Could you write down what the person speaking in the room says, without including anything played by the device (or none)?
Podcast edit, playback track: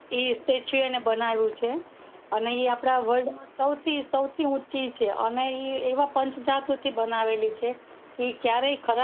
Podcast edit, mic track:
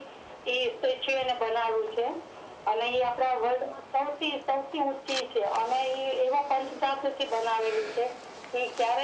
none